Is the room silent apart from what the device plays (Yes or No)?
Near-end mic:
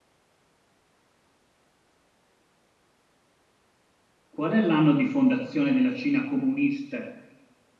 No